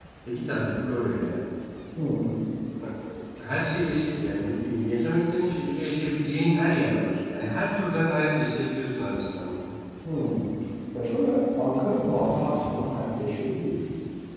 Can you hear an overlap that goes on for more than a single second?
No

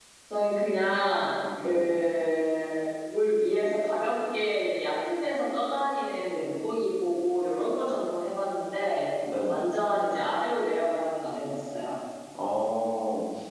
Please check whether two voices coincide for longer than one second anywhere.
No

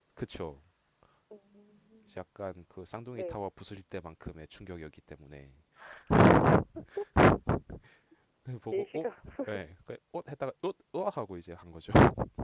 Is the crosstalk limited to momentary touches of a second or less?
Yes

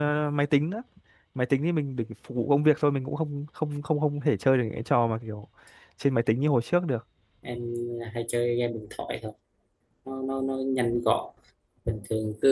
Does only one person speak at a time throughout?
Yes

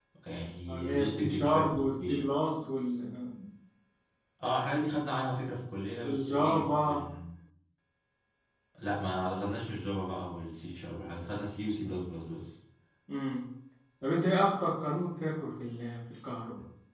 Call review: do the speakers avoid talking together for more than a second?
No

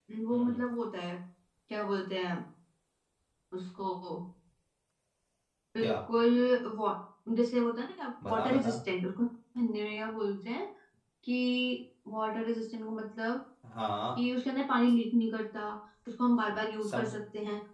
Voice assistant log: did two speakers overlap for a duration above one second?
No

